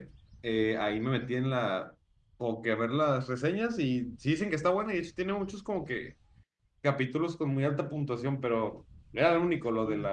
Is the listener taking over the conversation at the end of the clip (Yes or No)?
No